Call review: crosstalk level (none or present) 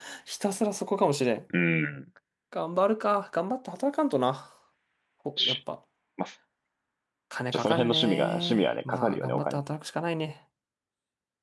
present